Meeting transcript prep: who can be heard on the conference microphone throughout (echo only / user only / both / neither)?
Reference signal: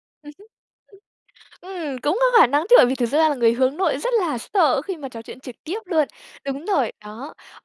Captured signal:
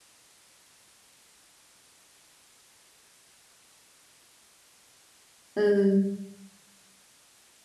user only